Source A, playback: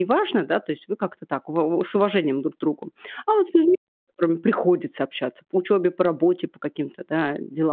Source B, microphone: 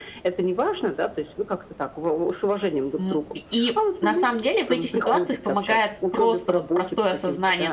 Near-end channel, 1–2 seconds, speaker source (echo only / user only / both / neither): echo only